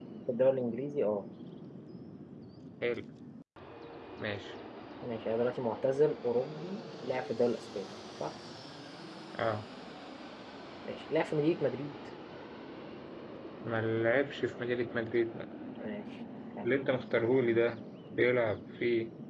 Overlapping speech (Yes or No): No